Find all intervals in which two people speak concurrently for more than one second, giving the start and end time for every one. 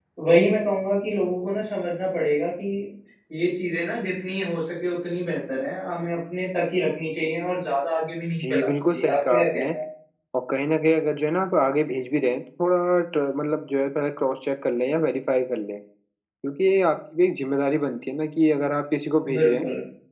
8.4-9.7

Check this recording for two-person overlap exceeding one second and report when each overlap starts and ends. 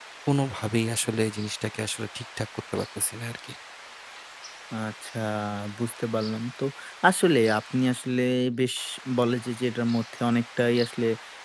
none

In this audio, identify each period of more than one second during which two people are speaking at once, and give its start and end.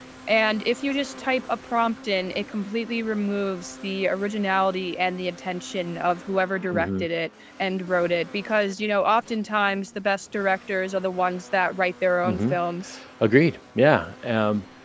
none

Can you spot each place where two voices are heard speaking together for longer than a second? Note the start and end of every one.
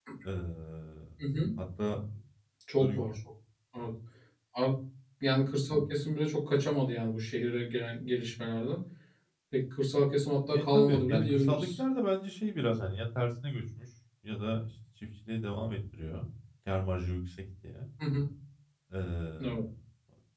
10.5-11.7

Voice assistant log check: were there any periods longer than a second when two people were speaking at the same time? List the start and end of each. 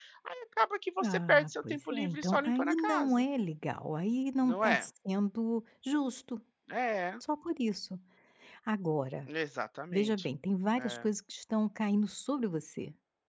1.0-3.2

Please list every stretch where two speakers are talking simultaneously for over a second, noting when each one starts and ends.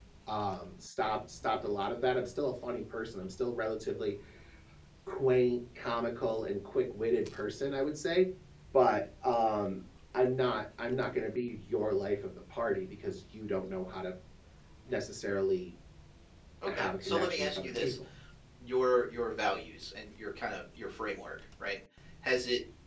16.7-17.9

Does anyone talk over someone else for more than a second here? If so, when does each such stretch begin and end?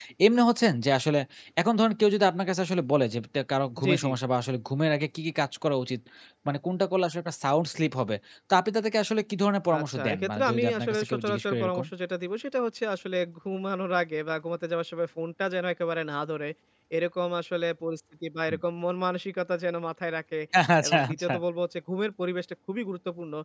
9.8-11.8

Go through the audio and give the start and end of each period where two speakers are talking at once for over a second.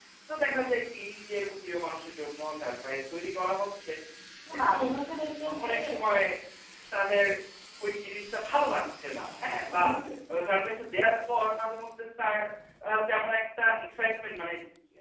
none

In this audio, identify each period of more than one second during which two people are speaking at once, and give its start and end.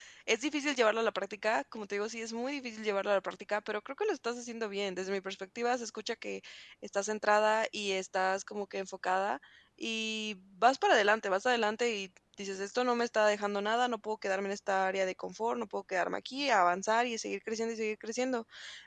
none

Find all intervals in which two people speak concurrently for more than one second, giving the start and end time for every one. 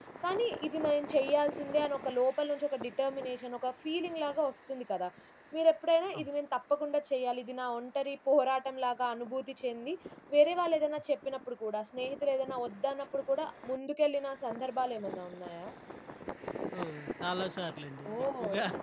none

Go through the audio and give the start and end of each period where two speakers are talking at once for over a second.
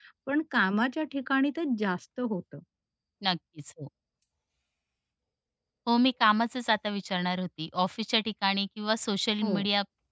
none

